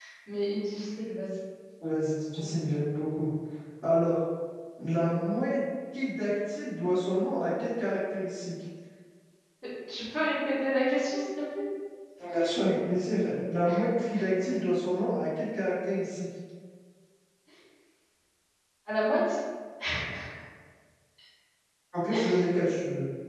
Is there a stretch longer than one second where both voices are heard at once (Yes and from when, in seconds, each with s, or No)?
No